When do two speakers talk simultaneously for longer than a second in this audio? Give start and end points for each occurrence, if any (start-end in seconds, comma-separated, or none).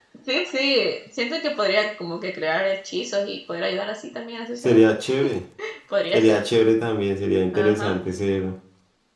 none